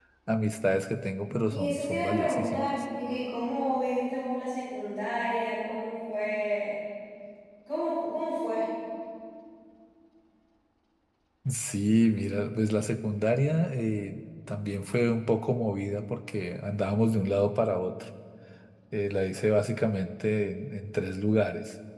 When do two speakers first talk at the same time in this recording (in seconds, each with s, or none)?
1.5 s